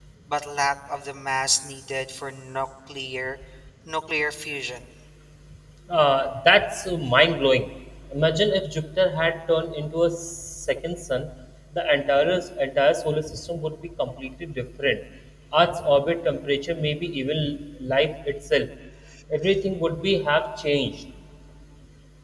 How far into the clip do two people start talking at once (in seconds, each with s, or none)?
none